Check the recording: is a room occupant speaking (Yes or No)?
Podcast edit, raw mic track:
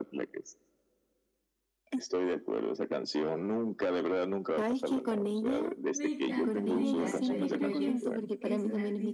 Yes